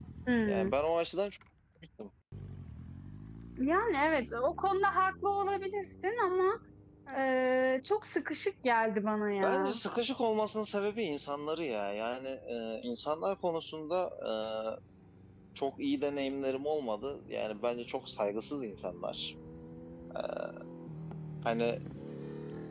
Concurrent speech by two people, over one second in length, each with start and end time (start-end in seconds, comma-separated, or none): none